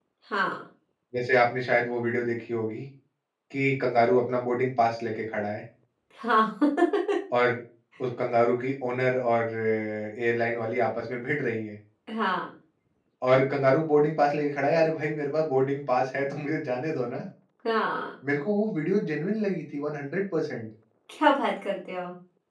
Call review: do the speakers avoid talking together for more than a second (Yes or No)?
Yes